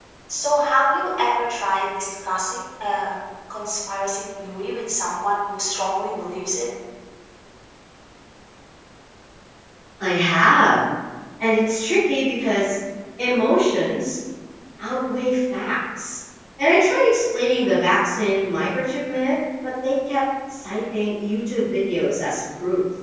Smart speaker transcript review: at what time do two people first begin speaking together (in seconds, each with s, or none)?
none